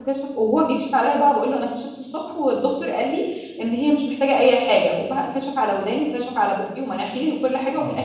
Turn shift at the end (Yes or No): No